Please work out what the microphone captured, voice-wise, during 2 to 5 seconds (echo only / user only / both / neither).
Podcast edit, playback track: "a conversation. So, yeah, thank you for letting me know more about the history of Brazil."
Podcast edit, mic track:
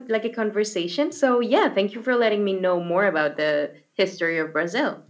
echo only